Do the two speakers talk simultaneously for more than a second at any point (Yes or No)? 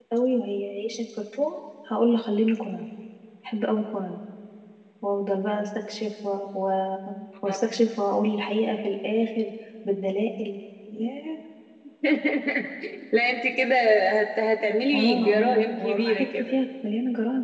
Yes